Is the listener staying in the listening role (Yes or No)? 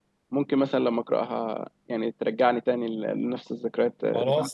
No